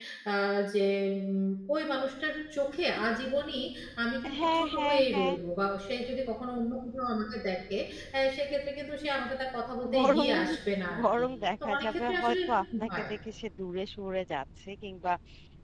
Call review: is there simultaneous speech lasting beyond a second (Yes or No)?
Yes